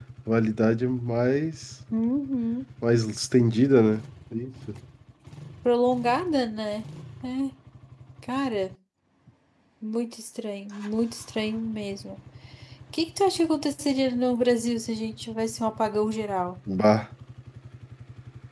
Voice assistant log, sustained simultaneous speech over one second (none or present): none